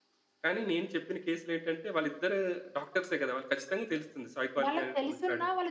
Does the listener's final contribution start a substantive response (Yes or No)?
Yes